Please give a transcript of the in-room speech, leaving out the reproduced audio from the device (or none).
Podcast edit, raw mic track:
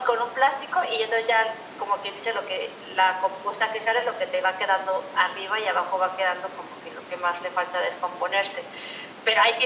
none